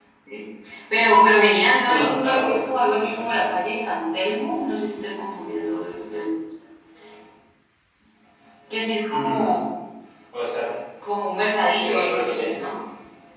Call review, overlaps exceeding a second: present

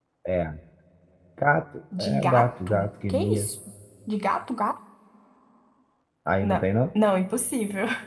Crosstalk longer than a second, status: present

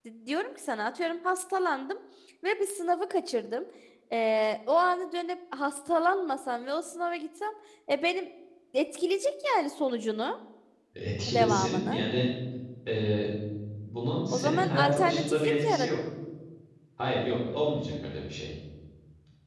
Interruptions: present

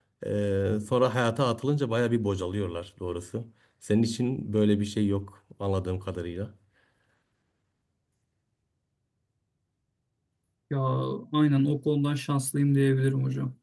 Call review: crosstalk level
none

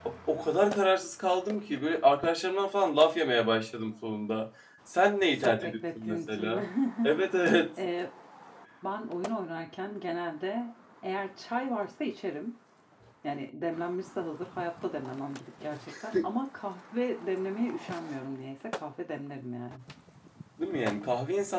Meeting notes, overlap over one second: present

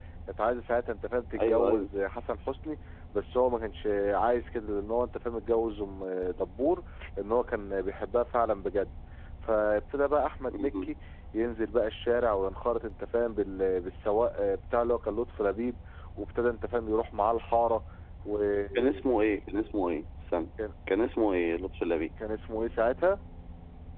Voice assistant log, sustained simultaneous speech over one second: none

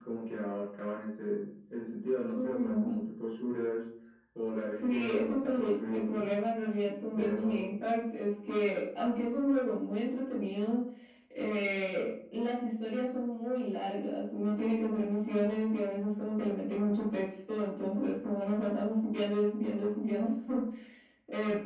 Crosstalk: present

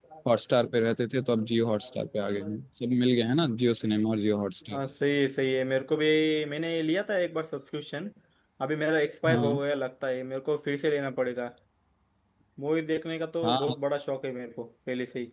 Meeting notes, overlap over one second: none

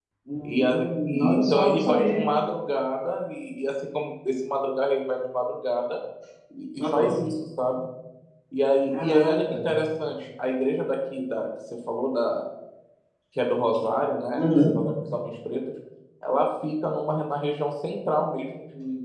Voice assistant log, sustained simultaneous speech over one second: present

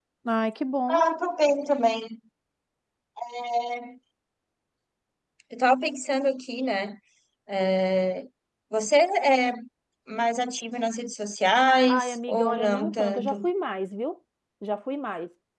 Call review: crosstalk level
present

